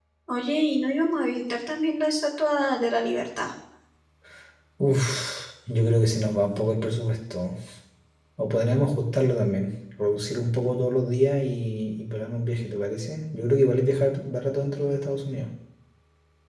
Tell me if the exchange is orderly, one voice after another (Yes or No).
Yes